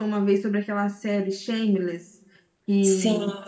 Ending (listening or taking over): listening